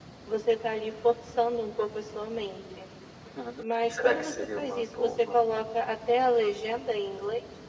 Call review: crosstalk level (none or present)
present